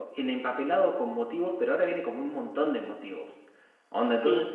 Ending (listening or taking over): listening